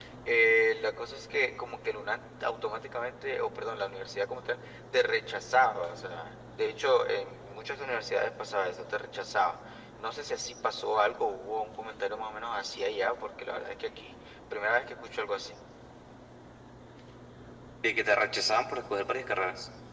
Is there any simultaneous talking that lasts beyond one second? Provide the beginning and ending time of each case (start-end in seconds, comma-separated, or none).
none